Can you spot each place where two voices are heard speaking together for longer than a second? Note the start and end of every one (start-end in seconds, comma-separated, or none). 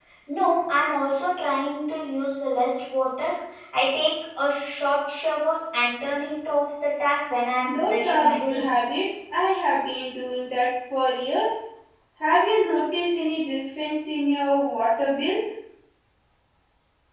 7.7-8.9